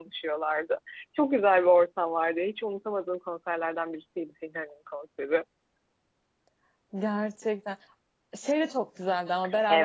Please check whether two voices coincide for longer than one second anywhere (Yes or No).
No